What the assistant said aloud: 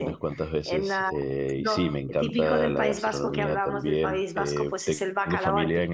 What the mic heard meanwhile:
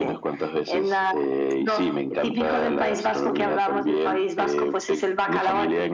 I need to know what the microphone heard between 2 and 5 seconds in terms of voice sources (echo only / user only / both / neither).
echo only